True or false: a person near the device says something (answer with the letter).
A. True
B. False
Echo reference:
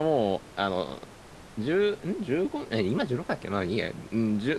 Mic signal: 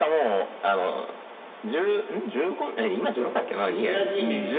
A